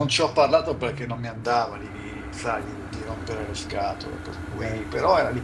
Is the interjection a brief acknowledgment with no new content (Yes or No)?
Yes